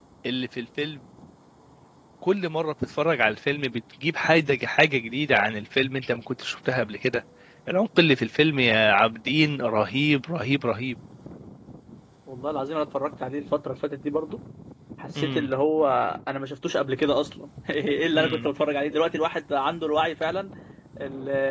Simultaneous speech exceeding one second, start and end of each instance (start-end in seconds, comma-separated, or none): none